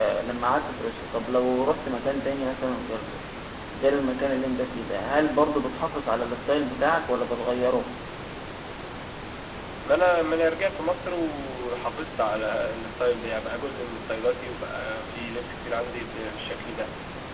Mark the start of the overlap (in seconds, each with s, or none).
none